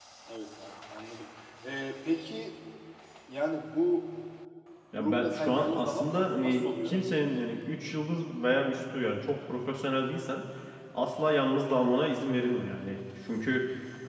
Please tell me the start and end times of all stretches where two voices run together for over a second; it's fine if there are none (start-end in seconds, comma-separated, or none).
5.0-7.0